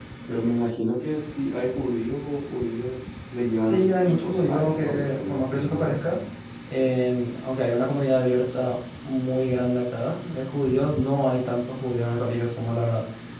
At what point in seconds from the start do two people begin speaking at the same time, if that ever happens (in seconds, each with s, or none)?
3.6 s